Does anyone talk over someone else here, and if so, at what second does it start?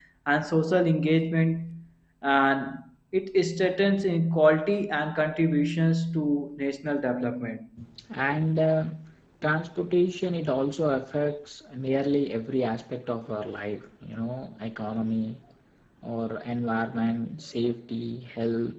none

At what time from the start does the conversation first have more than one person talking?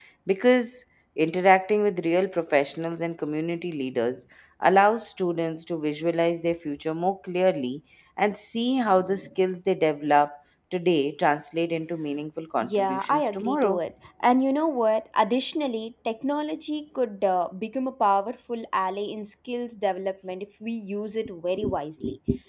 12.6 s

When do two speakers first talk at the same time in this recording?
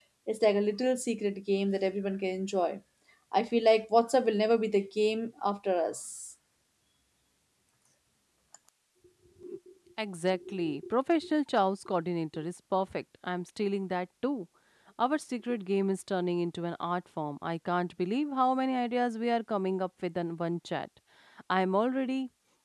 none

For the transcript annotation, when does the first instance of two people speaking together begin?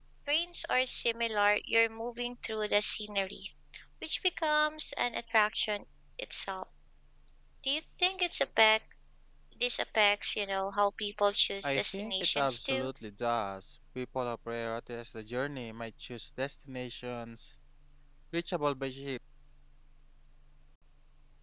11.6 s

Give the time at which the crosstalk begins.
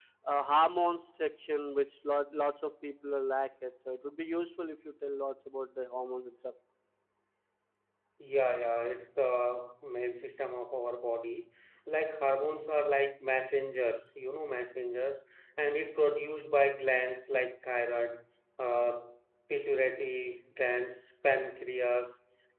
none

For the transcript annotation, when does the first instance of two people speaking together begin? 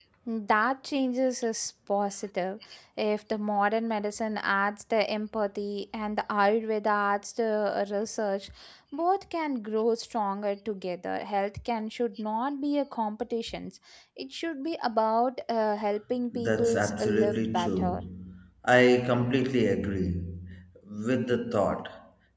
16.3 s

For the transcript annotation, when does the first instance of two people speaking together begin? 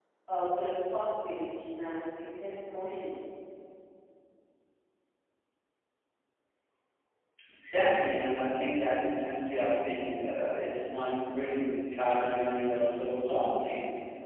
none

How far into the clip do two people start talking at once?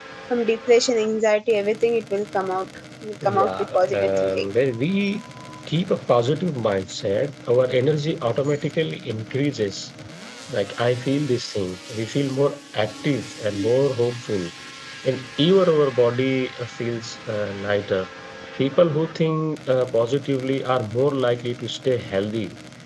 3.2 s

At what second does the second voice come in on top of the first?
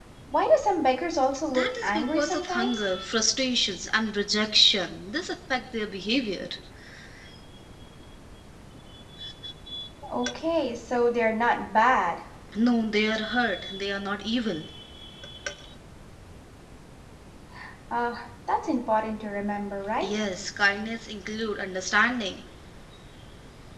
1.5 s

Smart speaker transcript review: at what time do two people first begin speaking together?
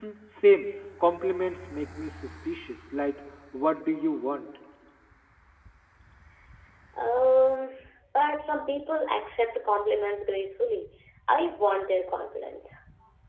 none

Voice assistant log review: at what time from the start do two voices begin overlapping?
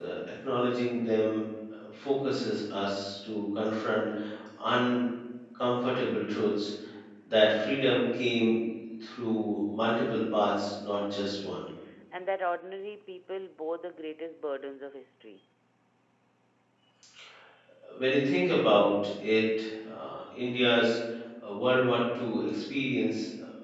none

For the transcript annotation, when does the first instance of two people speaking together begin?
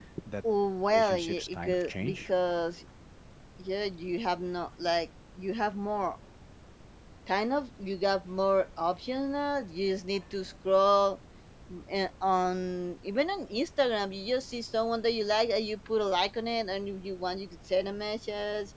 0.9 s

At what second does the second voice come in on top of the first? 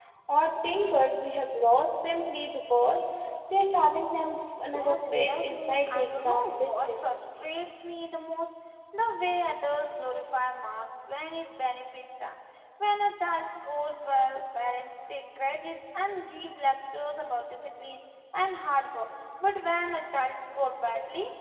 4.7 s

